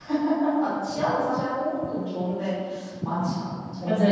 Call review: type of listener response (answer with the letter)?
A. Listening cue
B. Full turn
B